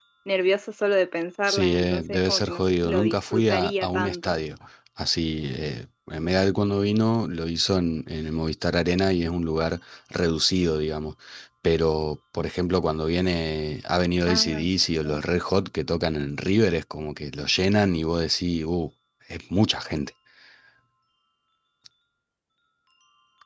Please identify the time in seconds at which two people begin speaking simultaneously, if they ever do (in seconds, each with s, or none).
1.5 s